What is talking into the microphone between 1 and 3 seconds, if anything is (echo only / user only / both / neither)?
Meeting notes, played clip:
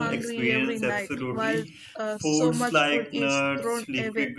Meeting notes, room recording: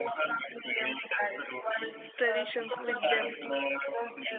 both